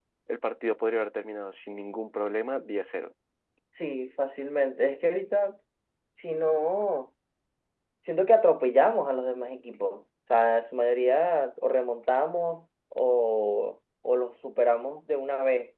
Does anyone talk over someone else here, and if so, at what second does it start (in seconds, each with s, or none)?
none